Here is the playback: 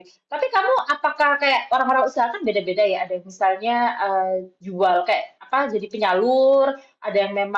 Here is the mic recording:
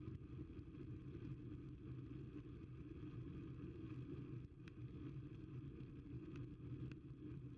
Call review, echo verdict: none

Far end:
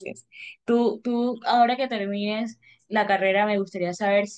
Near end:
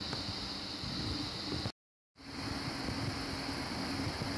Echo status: none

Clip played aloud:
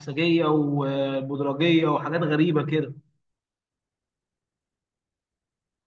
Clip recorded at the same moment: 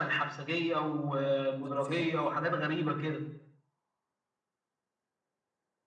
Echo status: present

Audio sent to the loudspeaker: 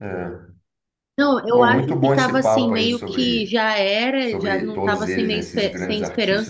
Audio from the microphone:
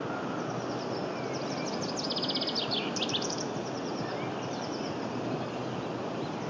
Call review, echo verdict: none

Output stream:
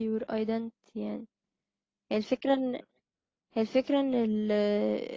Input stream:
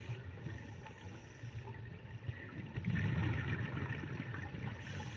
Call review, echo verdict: none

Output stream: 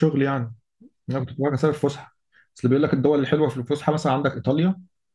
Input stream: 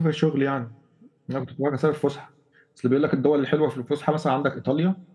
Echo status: present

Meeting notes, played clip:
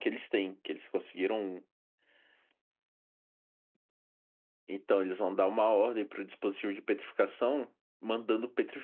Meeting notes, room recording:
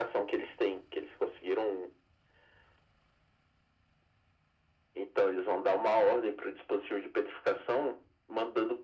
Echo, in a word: present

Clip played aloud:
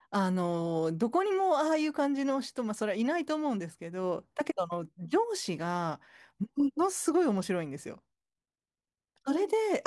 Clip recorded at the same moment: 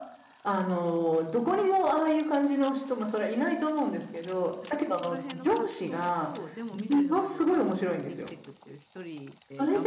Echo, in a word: present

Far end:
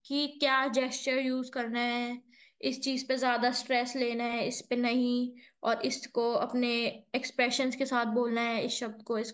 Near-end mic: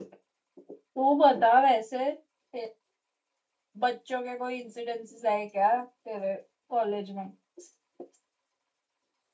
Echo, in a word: none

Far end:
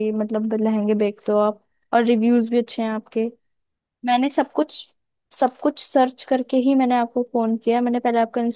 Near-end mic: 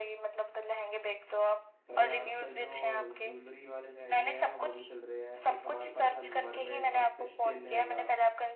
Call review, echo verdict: present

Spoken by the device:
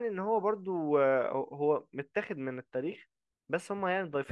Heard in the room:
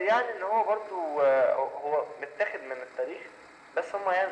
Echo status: present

